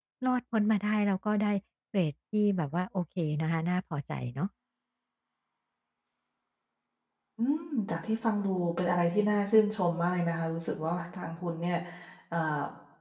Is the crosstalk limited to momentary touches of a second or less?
Yes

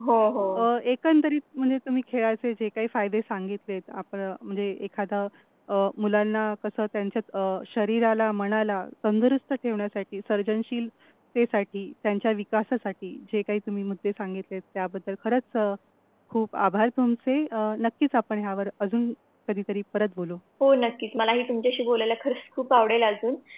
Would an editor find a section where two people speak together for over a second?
No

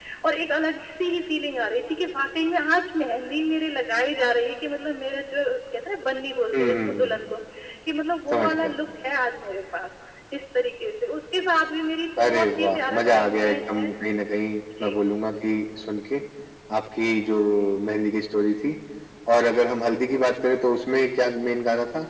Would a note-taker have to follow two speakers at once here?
Yes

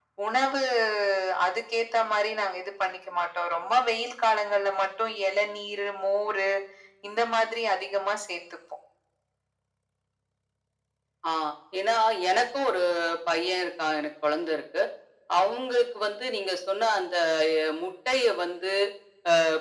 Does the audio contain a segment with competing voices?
No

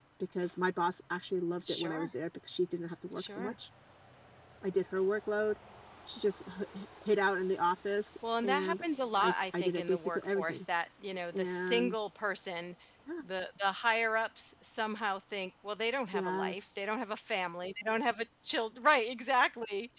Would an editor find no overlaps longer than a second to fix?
No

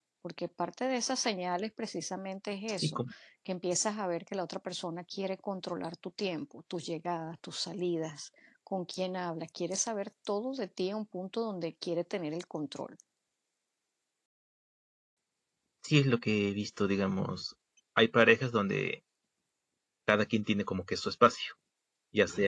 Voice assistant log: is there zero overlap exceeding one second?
Yes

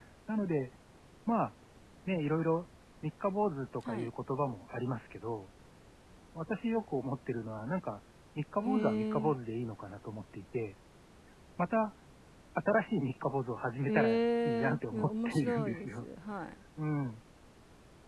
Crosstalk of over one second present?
Yes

